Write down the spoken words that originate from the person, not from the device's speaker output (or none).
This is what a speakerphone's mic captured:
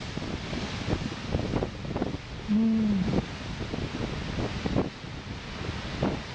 ね